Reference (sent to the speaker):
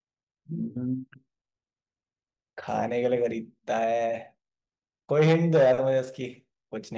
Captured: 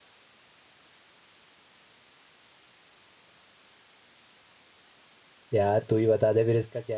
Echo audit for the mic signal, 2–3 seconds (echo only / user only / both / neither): neither